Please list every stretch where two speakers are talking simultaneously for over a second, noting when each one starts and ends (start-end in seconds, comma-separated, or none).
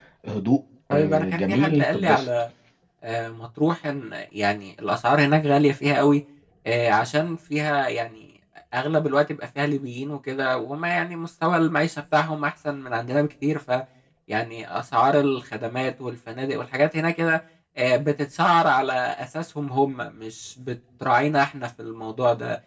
0.9-2.3